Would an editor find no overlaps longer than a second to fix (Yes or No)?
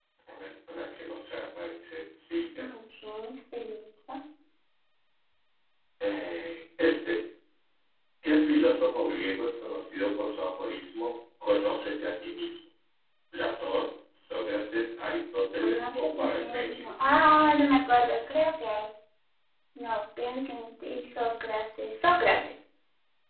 No